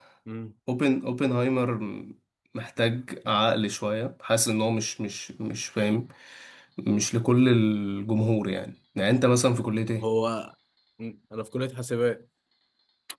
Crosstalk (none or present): none